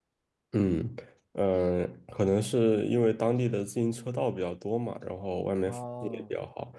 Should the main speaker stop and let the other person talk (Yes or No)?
Yes